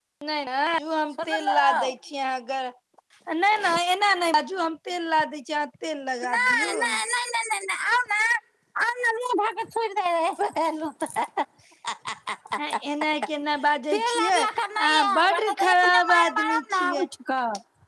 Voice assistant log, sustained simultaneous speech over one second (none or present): present